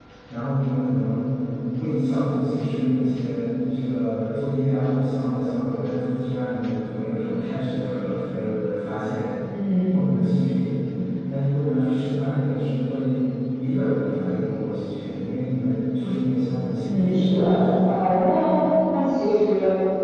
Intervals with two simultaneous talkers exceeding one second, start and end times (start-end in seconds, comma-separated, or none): 16.8-18.0